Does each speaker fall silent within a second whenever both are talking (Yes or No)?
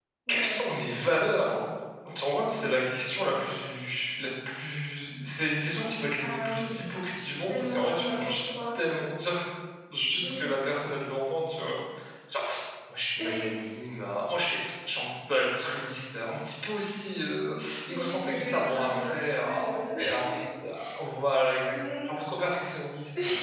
No